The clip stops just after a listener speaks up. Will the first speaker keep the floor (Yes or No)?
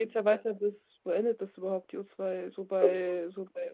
Yes